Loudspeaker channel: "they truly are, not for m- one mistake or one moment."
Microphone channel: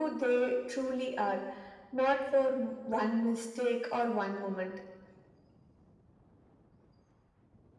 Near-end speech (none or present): none